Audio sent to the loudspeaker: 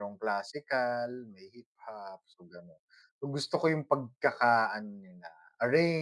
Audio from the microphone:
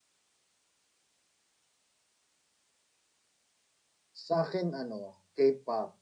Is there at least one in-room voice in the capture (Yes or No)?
Yes